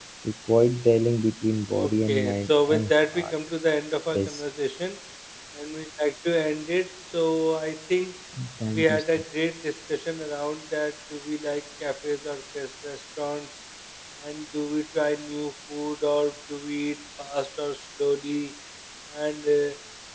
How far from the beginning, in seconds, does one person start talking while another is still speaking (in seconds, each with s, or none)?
1.7 s